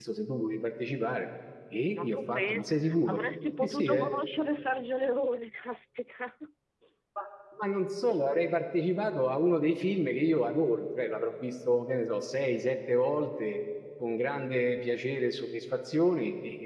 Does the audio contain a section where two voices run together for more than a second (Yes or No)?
Yes